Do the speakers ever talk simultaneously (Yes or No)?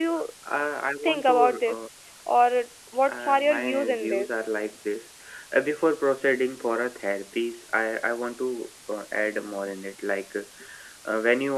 Yes